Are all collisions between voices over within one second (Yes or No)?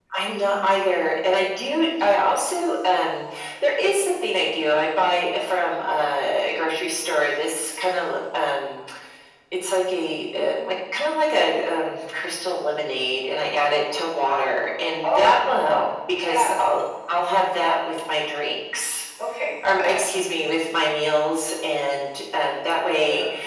Yes